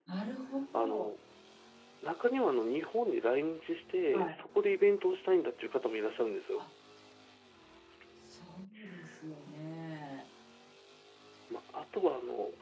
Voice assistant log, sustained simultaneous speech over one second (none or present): none